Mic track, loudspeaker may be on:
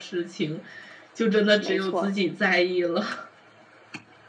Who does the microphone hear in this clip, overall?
both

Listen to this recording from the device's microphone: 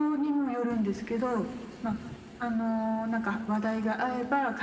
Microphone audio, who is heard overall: echo only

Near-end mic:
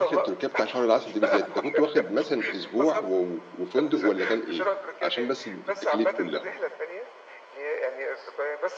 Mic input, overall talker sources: both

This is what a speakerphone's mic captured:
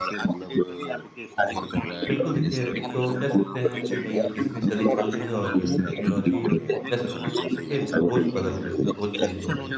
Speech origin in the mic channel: both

